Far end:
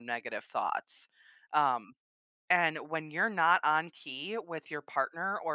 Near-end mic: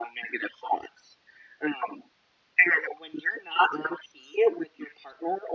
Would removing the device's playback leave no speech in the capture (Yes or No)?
Yes